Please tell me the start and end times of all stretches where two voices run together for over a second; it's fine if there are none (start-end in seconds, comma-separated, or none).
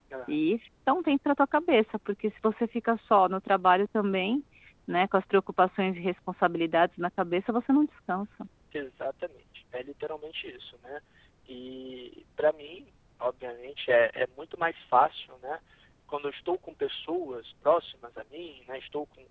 none